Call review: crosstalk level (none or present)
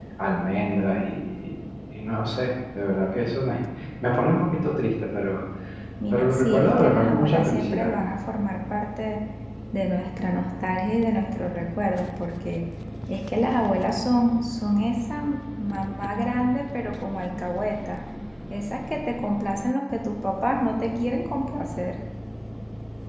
present